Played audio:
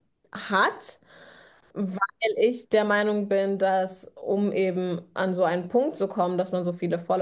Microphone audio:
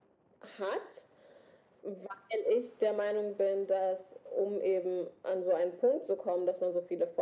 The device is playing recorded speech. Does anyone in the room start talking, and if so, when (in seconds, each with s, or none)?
none